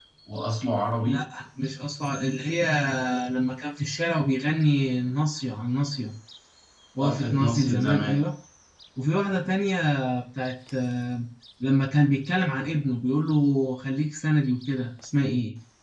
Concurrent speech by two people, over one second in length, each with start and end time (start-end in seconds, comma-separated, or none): 7.0-8.2